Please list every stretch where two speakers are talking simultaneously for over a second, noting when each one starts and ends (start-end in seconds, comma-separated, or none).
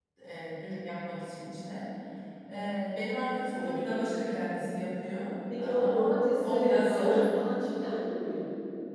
5.6-7.1